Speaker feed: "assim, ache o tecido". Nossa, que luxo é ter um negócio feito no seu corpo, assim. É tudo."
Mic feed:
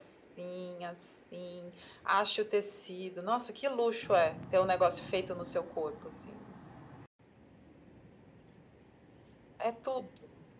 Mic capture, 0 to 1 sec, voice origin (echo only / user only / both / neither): echo only